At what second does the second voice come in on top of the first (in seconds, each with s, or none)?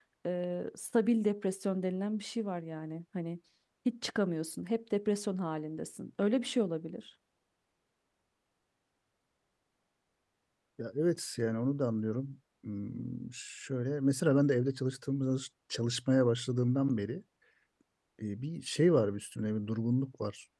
none